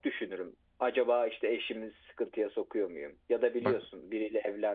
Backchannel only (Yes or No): Yes